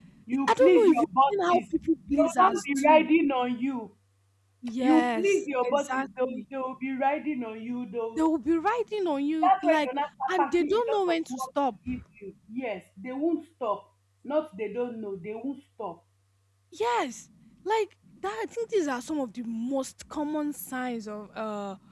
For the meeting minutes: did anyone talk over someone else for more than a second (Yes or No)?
Yes